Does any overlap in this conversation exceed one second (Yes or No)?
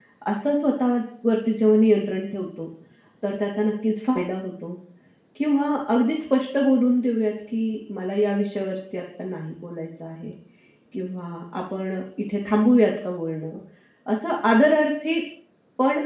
No